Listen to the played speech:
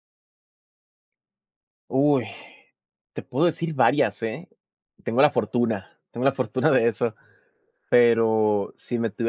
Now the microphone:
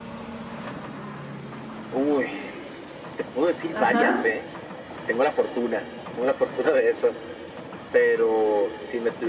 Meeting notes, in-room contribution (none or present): present